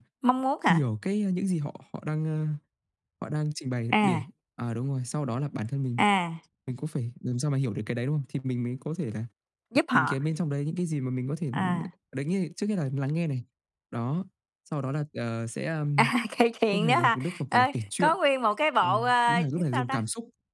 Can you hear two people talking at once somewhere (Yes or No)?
Yes